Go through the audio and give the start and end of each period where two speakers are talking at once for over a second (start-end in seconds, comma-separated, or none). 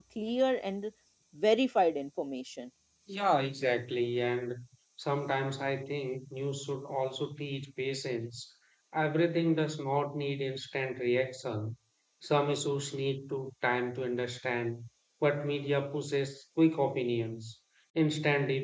none